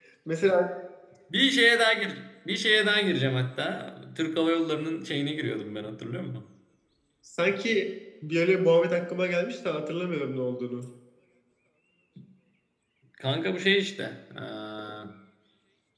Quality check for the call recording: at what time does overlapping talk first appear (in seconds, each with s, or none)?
none